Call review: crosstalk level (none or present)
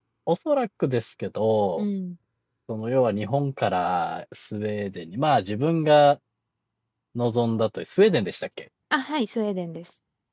none